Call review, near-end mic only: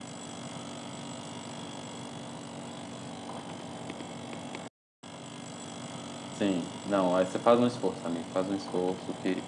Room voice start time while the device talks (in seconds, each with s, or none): 6.3 s